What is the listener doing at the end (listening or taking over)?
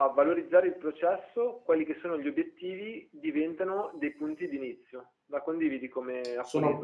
taking over